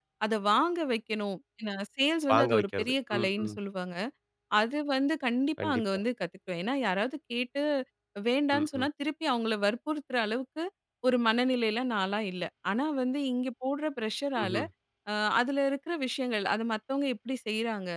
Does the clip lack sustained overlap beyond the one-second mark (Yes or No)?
No